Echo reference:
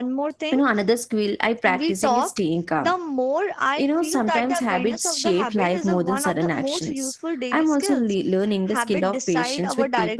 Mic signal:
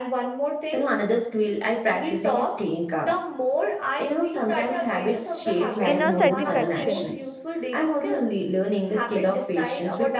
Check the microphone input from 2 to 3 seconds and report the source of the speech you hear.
echo only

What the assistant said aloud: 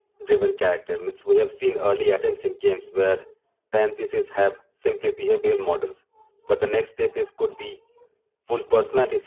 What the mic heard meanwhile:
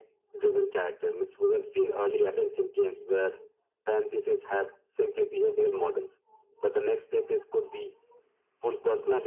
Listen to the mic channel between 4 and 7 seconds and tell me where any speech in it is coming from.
echo only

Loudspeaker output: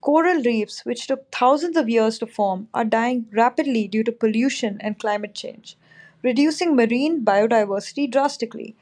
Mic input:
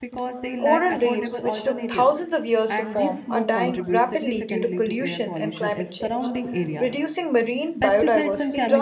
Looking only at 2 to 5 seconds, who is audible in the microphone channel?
both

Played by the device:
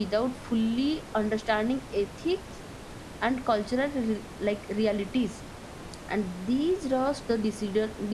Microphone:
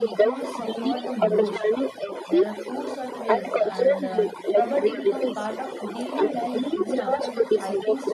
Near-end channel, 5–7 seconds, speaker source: both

